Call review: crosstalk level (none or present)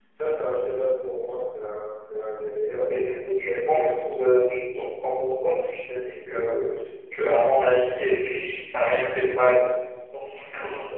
present